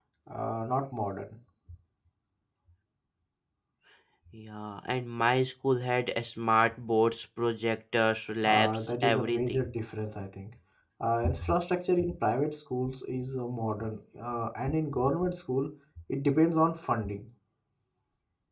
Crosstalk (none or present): present